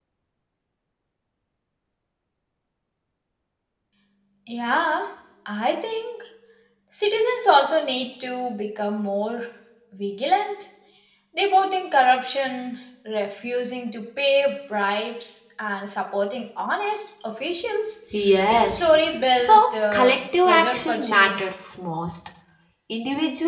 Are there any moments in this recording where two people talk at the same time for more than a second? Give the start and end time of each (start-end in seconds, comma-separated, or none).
19.4-21.5